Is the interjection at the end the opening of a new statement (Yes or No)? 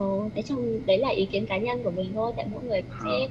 No